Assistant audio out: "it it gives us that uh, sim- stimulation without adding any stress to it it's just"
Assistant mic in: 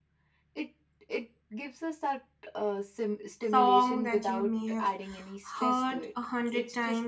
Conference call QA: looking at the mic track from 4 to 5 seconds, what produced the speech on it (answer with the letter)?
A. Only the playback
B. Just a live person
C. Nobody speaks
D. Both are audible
D